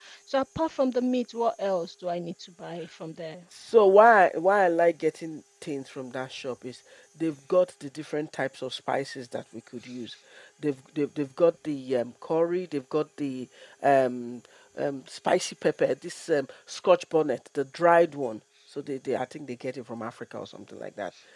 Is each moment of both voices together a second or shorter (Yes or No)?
Yes